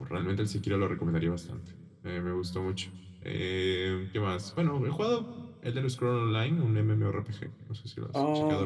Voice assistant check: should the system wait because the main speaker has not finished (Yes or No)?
No